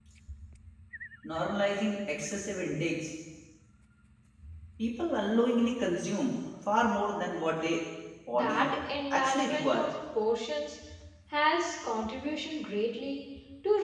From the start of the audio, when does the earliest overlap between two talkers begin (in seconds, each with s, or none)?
8.3 s